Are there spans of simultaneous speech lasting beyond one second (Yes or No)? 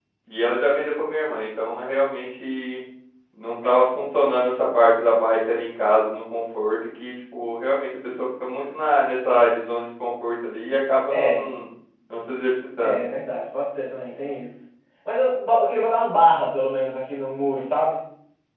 No